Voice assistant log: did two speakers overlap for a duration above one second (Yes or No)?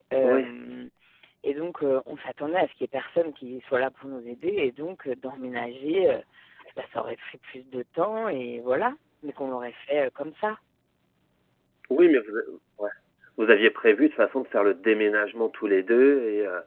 No